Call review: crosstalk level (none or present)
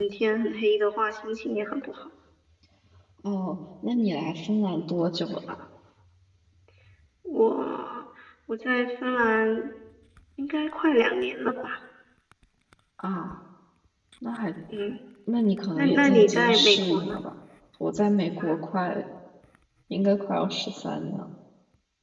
present